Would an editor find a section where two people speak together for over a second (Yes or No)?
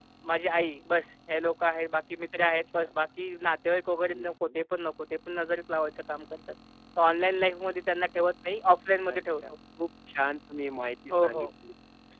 No